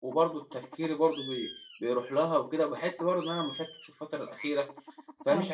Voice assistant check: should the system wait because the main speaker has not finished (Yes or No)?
Yes